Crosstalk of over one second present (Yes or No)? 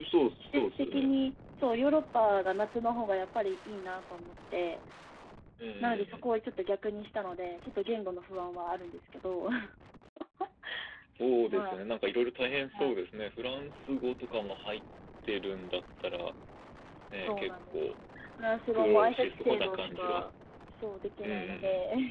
Yes